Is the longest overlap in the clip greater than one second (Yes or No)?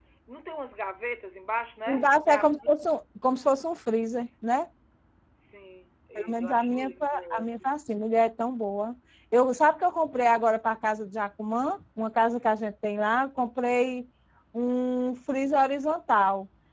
Yes